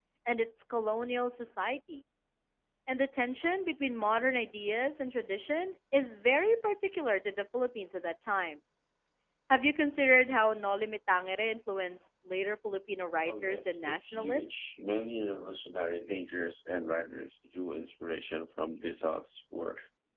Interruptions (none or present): present